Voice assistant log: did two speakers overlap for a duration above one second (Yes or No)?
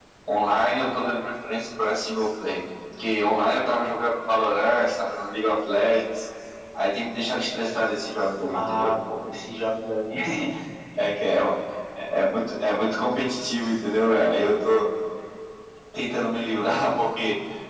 No